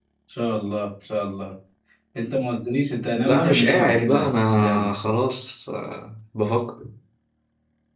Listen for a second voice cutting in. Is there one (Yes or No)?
Yes